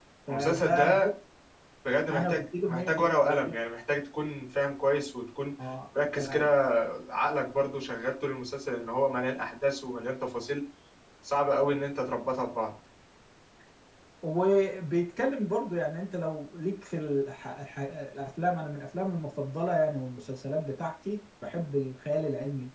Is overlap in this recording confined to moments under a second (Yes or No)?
No